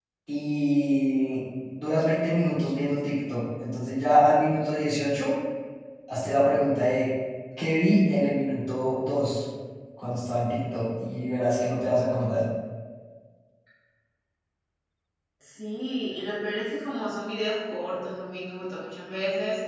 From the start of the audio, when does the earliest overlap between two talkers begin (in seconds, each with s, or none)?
none